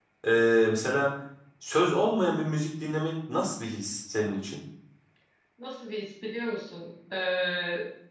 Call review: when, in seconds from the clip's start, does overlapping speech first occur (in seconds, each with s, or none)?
none